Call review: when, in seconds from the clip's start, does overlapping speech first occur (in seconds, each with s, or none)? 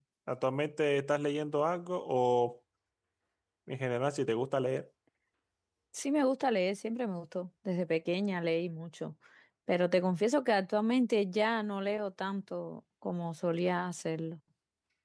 none